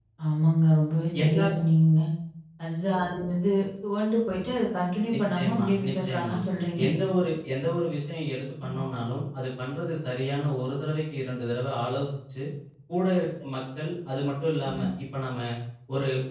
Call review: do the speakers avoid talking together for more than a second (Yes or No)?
No